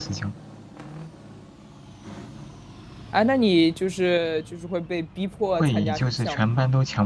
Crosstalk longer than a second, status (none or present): present